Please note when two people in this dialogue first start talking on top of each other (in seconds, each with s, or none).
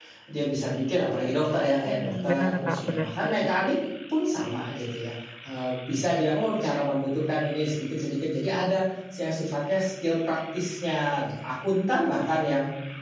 1.8 s